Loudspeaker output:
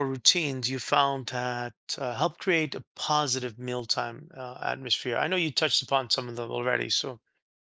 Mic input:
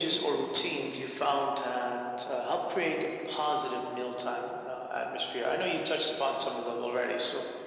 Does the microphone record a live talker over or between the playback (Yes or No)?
No